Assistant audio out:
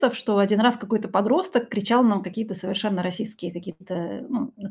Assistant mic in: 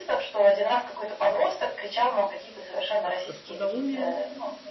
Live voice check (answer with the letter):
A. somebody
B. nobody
A